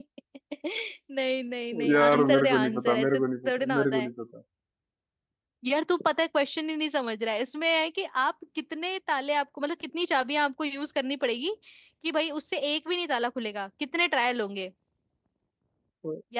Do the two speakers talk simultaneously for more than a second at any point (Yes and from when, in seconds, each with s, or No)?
Yes, from 1.9 s